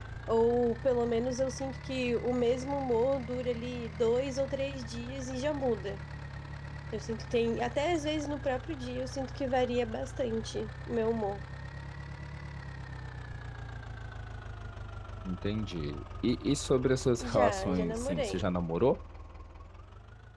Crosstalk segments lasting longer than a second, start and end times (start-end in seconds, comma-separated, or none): 17.2-18.4